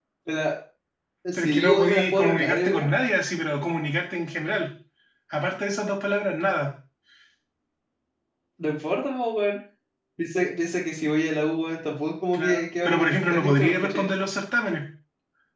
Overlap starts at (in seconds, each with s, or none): 1.4 s